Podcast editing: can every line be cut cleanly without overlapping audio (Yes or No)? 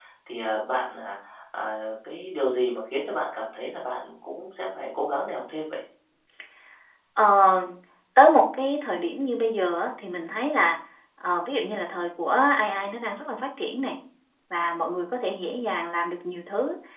Yes